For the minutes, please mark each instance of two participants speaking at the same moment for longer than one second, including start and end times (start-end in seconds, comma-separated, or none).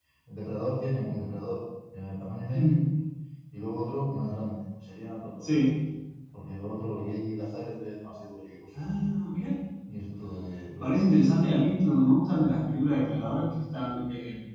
10.8-12.1